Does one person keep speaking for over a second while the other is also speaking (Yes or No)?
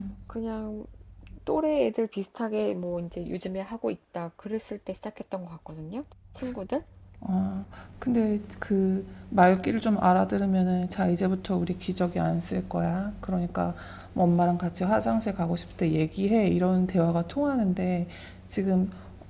No